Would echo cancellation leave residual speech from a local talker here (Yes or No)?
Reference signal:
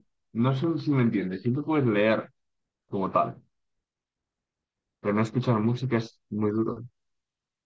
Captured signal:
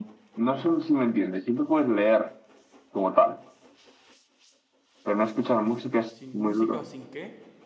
Yes